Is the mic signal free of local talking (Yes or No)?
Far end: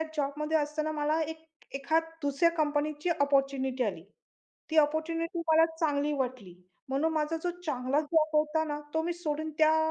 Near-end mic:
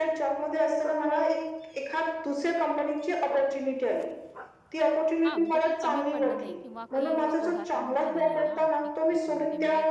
No